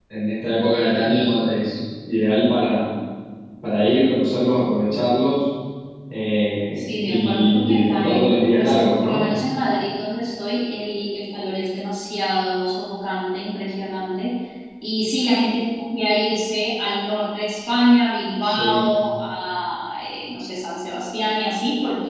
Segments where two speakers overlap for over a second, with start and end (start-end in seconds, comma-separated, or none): 6.8-9.2